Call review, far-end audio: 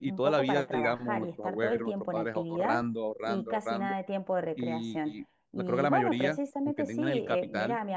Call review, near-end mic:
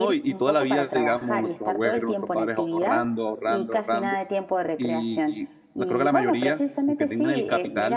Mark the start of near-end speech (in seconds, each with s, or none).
none